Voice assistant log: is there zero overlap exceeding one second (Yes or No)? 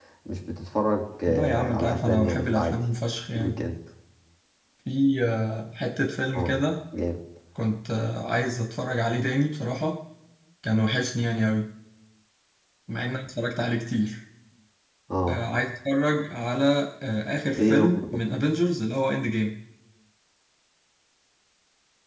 No